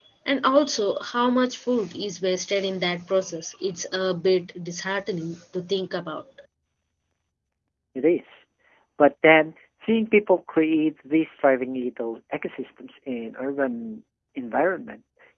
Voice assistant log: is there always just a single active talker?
Yes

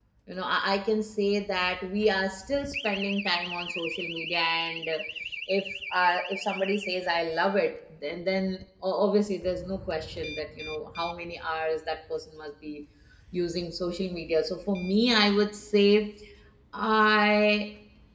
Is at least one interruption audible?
No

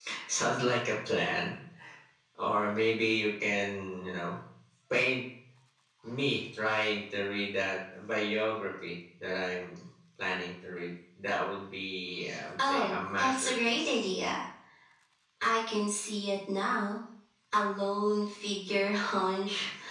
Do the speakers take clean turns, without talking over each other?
No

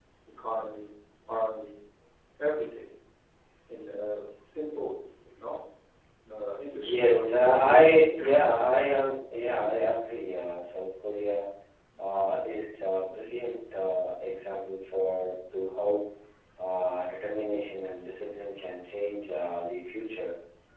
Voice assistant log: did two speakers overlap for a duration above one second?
Yes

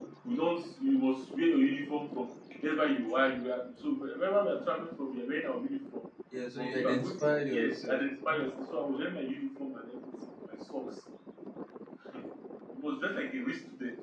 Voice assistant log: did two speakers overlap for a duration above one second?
Yes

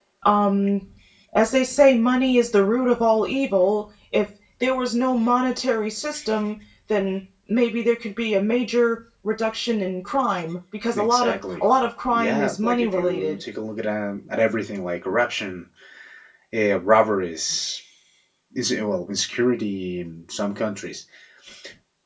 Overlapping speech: Yes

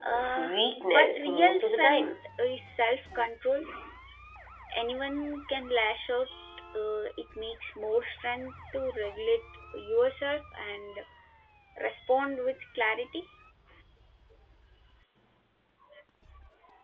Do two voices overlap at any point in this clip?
Yes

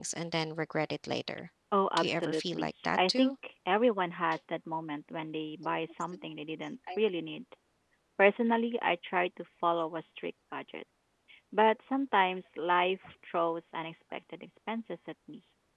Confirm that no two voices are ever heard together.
No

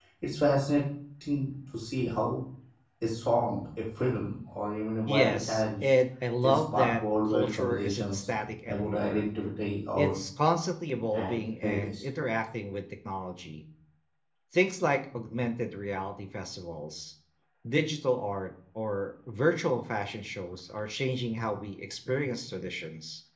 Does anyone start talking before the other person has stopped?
Yes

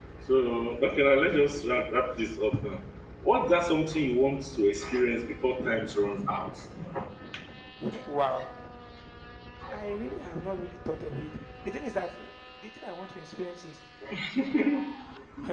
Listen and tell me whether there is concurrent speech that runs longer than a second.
No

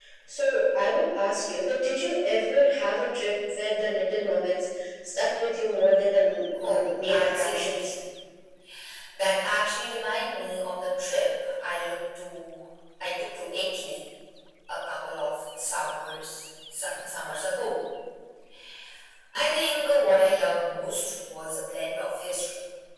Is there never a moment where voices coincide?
No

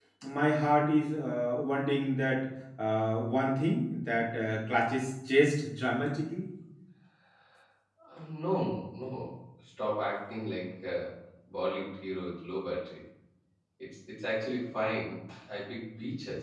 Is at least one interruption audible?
No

